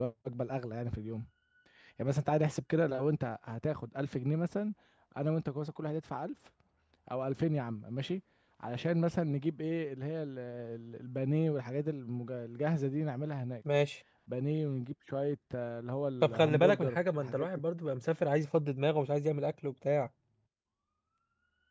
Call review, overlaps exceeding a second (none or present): present